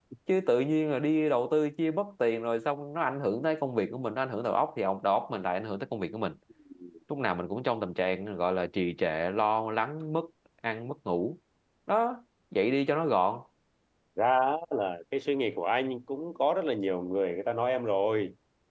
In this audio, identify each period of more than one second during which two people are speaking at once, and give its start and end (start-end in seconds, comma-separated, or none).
none